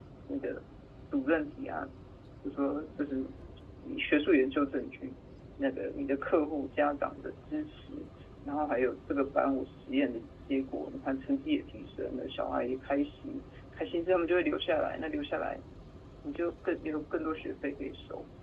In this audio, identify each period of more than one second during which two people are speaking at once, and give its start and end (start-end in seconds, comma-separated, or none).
none